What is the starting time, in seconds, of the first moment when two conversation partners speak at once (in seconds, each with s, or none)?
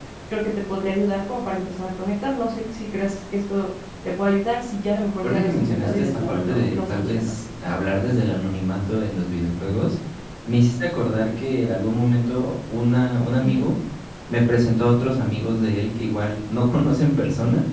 5.2 s